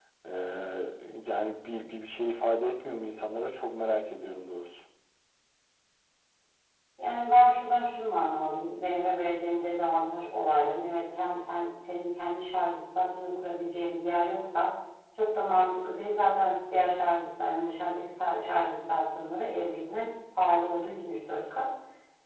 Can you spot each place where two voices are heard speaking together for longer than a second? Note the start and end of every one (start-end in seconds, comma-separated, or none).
none